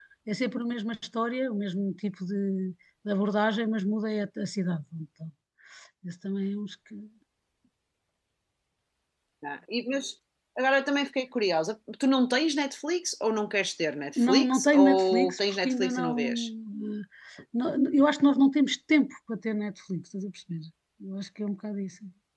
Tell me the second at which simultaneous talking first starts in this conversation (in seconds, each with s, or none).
14.2 s